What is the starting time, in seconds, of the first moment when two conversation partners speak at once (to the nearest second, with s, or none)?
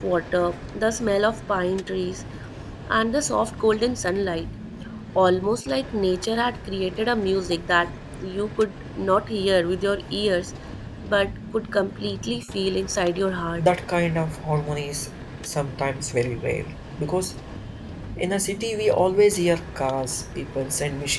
none